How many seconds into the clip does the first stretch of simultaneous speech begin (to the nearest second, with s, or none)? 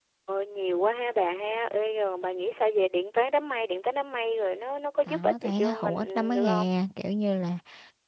5 s